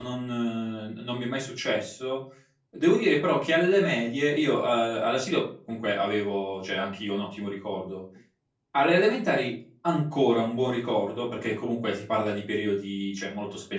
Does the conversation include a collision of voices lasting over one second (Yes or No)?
No